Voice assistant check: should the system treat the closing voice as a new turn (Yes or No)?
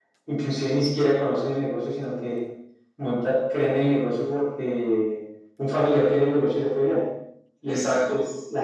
No